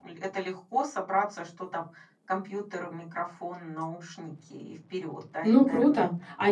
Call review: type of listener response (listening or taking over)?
taking over